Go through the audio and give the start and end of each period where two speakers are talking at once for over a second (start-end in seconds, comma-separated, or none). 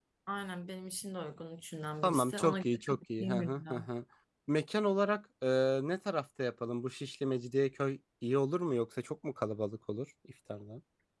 2.0-3.9